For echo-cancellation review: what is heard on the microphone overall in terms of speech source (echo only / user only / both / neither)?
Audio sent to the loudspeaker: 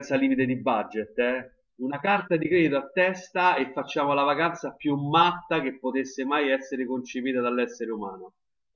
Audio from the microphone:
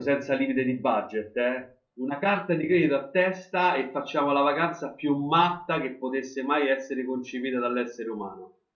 echo only